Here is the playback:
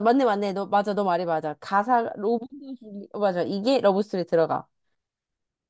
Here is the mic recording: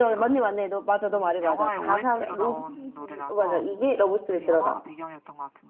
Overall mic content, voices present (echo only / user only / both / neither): both